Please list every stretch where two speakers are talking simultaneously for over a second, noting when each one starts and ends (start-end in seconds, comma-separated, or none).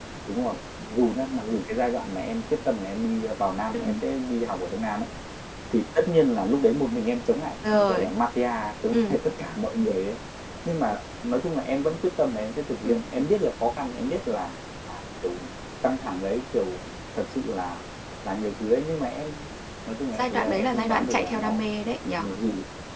20.2-21.6